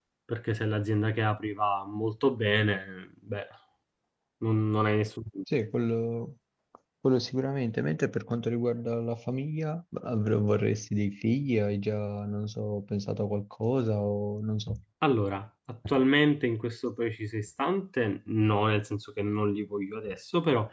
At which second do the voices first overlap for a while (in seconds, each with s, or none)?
none